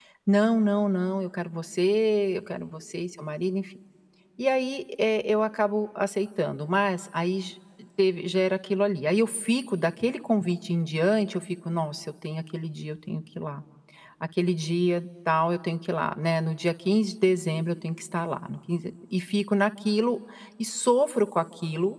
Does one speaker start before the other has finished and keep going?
No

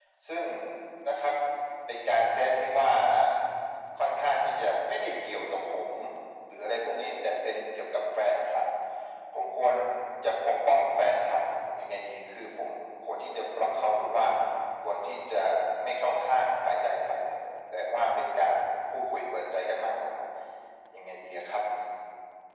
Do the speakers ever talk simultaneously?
No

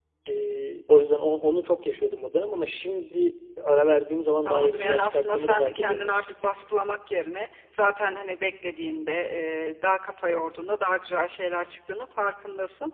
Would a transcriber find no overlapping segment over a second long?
No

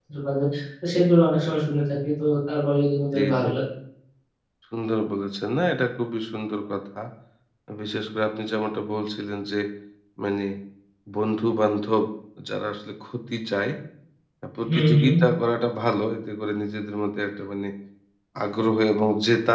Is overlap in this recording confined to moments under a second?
Yes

